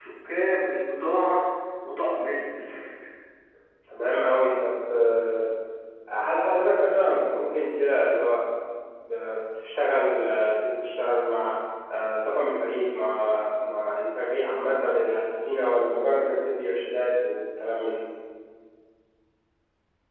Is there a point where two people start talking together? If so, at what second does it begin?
none

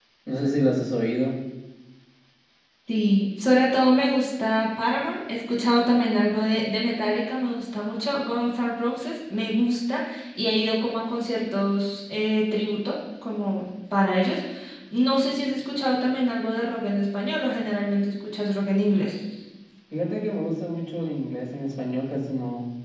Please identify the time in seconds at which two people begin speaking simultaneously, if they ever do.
none

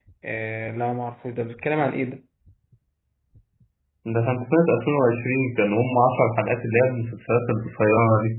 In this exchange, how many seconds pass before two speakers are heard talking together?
none

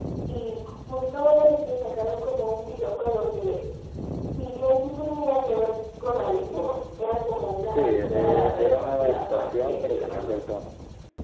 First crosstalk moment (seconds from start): 7.8 s

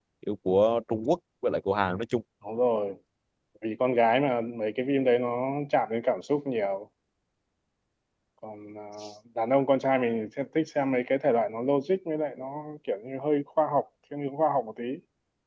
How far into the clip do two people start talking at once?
none

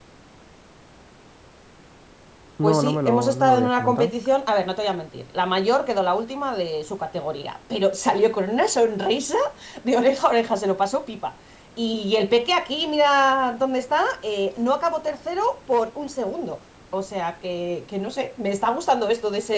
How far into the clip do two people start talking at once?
2.6 s

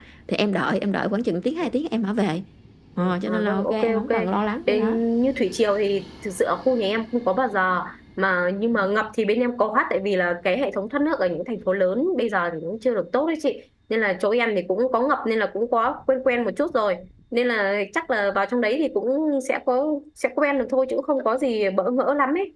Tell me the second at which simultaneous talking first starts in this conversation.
3.0 s

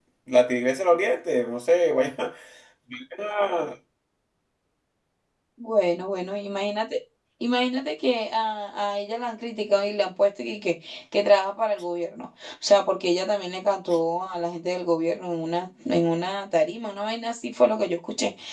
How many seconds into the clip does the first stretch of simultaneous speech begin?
none

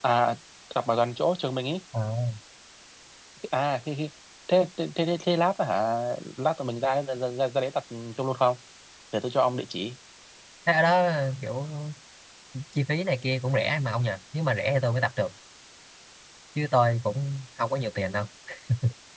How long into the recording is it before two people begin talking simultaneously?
none

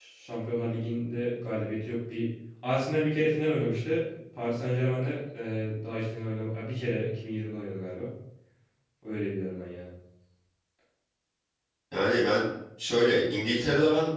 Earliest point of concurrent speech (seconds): none

